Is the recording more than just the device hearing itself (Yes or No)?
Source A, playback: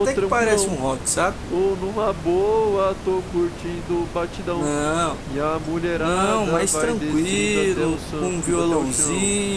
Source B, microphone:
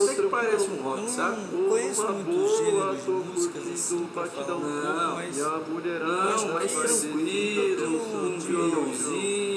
Yes